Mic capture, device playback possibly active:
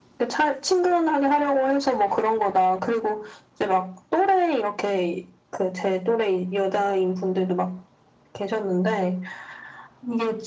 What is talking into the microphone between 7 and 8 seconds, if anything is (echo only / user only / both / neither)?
echo only